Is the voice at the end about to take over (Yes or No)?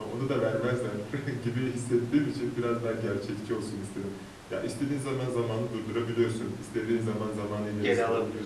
No